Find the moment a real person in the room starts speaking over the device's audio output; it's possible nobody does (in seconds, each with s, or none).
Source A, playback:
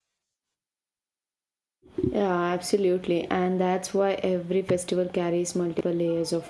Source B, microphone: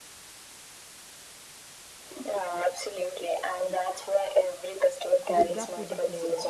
5.4 s